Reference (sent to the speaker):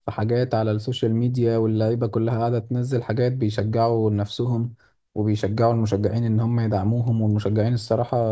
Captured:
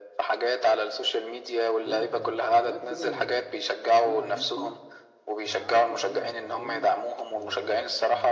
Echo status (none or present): present